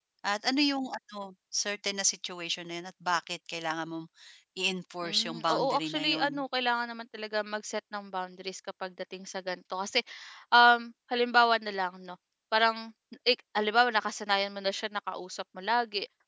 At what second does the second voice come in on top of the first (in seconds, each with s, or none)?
5.0 s